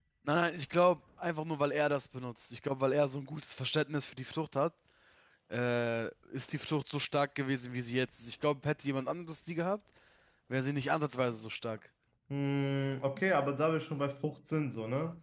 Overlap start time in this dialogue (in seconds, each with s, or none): none